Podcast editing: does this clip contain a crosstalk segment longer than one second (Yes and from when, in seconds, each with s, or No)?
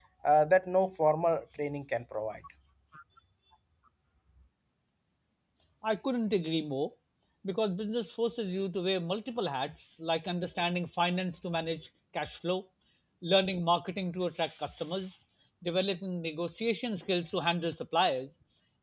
No